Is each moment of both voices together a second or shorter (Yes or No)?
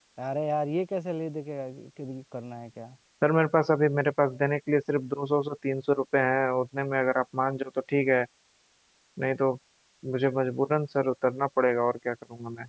Yes